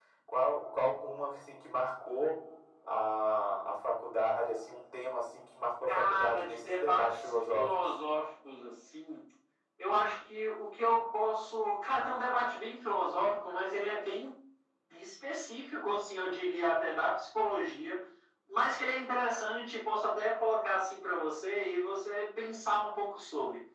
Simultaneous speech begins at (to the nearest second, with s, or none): 6 s